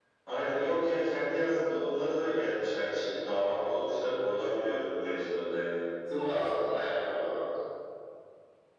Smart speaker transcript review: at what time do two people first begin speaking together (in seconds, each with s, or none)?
none